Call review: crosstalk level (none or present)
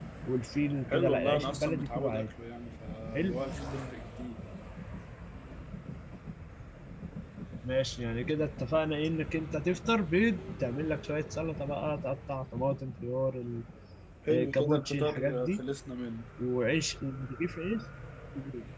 present